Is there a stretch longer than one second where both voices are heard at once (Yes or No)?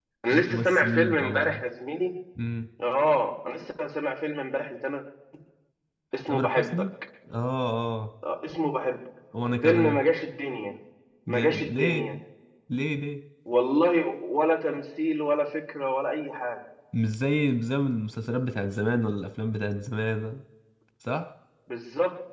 Yes